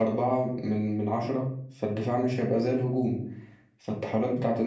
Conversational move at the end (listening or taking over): listening